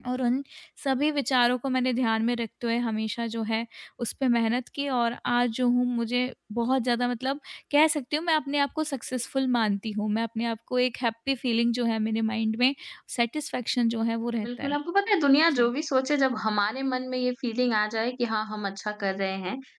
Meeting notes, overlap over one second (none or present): none